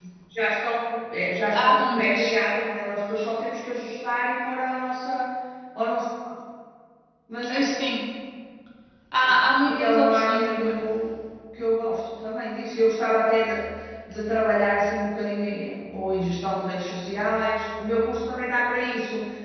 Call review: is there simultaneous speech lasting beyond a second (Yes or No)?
Yes